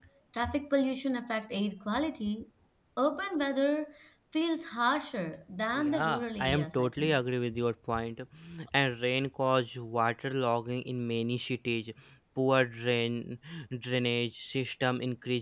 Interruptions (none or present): present